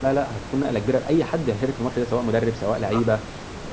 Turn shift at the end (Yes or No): No